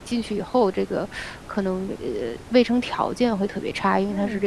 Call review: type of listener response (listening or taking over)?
listening